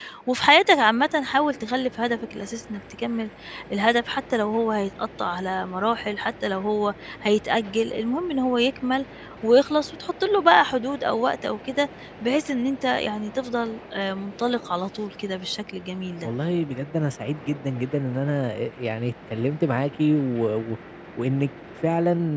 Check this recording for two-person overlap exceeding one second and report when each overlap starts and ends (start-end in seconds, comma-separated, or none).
none